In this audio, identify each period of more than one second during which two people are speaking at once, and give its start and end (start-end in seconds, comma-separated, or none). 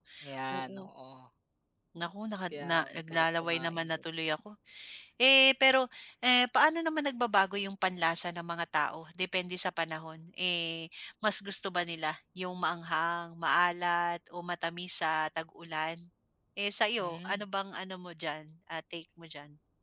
2.5-3.8